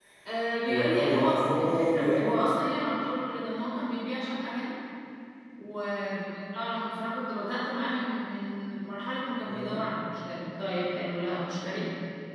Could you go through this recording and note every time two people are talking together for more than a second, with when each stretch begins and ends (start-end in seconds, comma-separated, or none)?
0.7-2.3